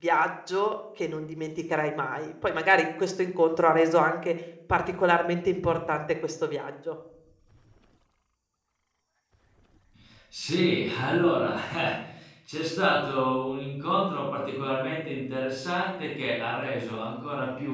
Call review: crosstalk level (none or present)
none